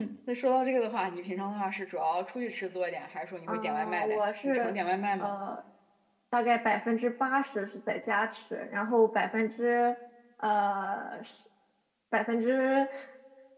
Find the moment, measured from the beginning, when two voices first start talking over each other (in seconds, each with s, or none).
3.5 s